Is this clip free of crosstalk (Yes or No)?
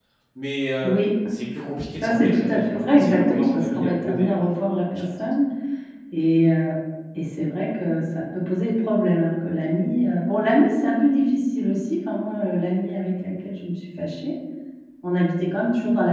No